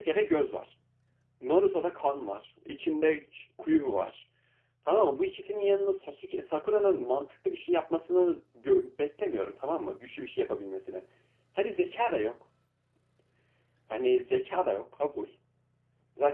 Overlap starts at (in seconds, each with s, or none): none